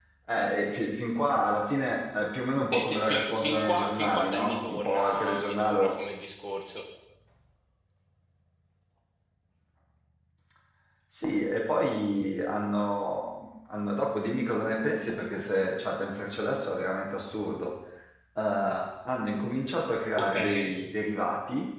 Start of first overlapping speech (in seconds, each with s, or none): 2.7 s